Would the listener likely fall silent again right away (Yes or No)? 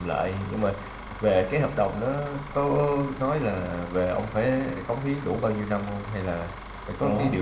No